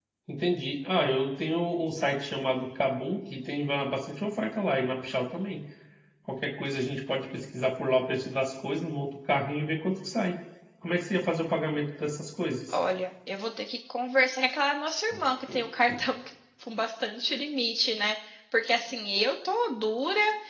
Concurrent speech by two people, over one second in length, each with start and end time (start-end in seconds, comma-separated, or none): none